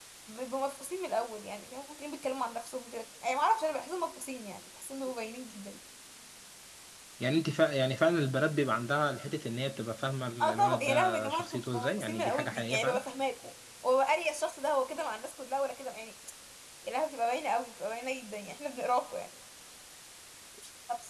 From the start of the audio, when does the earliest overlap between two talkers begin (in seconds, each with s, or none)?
10.4 s